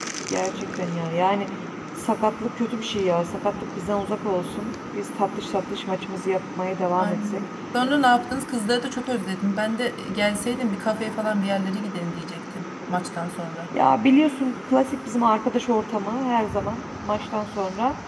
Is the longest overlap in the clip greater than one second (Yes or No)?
No